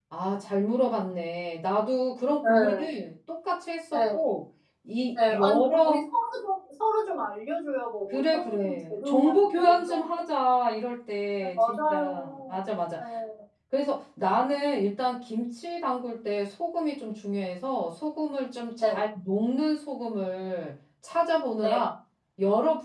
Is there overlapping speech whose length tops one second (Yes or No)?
Yes